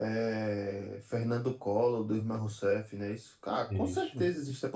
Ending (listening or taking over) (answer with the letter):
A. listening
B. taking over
A